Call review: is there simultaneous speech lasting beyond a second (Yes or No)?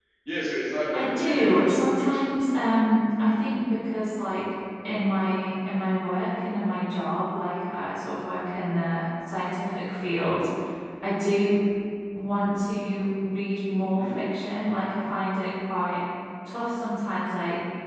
Yes